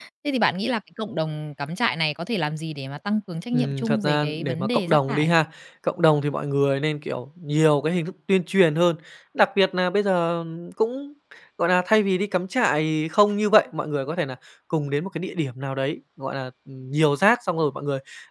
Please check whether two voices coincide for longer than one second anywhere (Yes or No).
Yes